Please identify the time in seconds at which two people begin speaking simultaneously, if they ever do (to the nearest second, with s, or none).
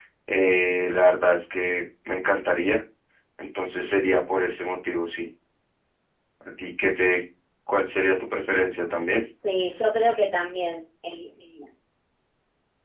none